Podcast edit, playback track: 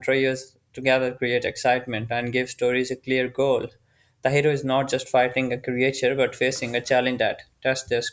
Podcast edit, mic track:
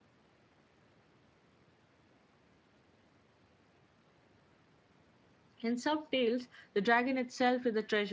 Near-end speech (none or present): present